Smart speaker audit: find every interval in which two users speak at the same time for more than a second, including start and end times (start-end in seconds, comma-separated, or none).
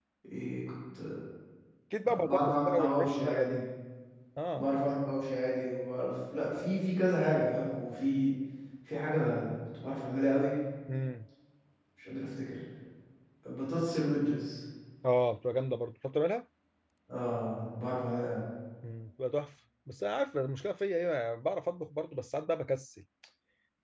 2.1-3.6